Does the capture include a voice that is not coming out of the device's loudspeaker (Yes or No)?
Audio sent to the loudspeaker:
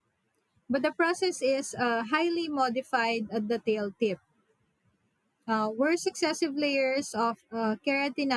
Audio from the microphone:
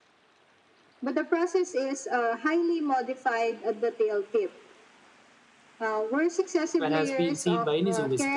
Yes